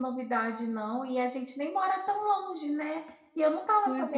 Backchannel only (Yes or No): Yes